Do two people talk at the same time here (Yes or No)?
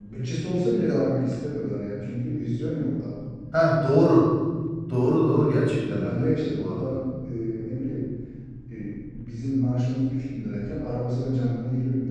Yes